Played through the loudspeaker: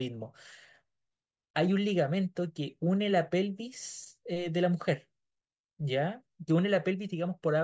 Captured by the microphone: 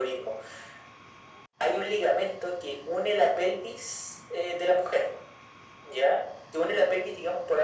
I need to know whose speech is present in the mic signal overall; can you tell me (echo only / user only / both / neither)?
echo only